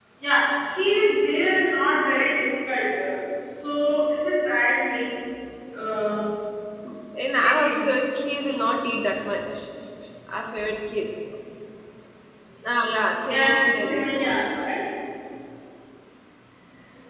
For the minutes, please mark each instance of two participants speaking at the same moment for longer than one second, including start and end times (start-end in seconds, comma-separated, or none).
13.3-14.7